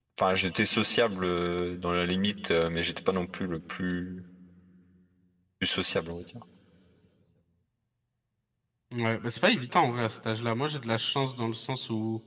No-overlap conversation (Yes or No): Yes